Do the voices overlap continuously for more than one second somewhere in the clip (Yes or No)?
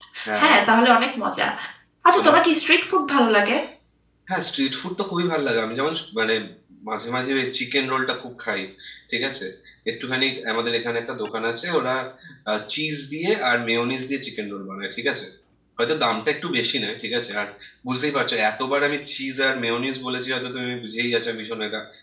No